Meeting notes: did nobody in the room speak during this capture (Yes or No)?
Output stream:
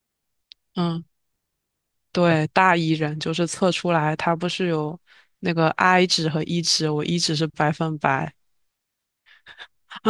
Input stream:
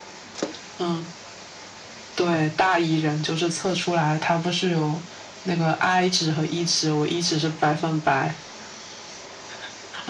Yes